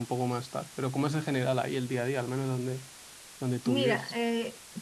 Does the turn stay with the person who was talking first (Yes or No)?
No